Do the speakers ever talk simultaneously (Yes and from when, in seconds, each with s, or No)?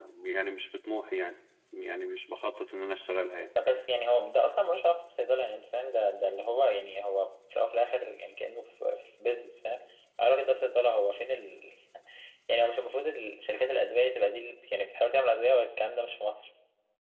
No